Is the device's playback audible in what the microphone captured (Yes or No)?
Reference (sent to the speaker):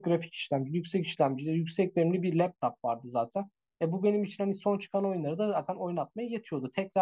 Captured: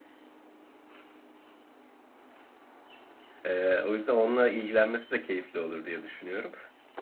No